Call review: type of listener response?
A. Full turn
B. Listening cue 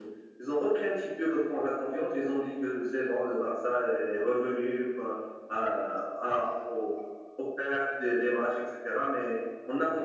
B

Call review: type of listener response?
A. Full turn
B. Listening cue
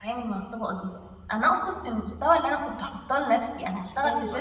B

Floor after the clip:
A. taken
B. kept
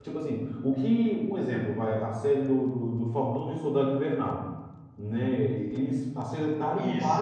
B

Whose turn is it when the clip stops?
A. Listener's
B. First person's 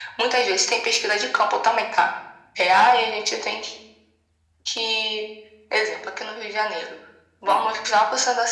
B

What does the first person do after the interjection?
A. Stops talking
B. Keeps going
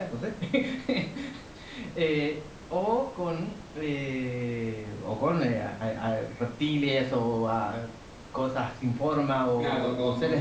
A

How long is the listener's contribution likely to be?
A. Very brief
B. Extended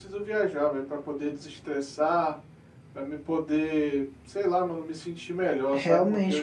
B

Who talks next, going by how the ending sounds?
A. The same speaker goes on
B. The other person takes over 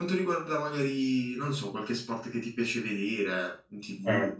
B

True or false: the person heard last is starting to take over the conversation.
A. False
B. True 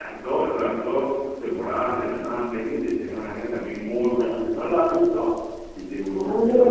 B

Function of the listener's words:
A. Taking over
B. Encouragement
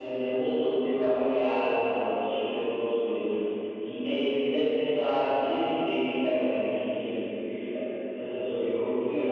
B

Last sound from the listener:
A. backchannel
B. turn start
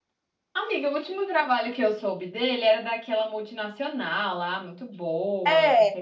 B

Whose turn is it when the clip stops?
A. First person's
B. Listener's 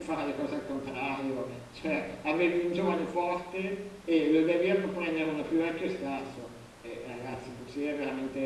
A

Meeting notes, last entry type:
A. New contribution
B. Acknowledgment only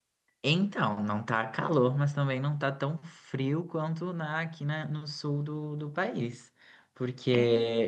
B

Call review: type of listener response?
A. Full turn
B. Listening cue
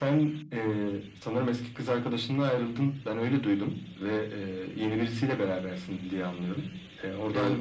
B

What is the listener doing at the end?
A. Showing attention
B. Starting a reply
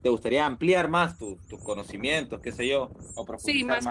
B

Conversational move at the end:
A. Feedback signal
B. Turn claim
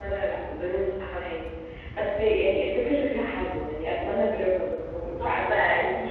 B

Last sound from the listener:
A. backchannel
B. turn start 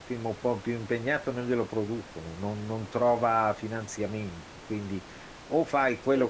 A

